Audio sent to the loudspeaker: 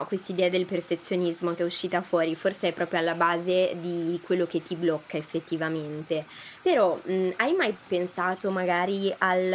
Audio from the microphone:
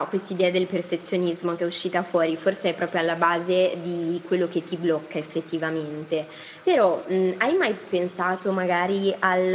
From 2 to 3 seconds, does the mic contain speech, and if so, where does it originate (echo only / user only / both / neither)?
echo only